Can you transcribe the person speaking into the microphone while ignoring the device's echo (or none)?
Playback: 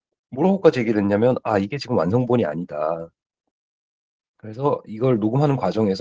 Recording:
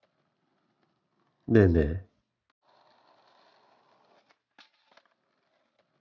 네네.